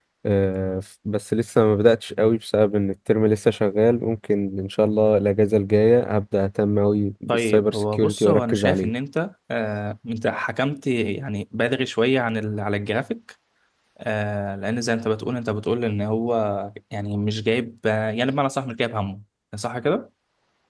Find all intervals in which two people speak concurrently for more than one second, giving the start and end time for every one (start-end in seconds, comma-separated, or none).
7.3-8.9